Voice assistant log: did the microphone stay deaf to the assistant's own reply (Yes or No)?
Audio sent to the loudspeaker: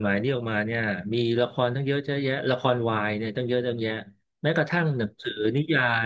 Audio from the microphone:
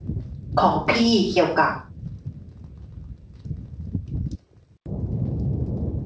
Yes